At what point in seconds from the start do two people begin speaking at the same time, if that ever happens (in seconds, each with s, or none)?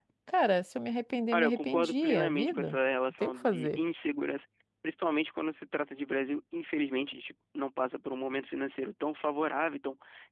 1.3 s